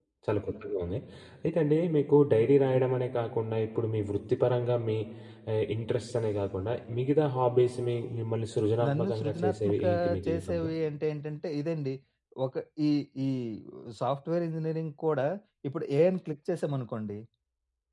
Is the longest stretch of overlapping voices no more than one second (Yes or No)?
No